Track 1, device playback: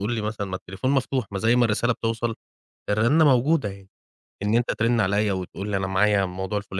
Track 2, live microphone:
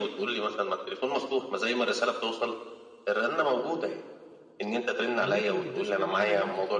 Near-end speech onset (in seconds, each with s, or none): 5.2 s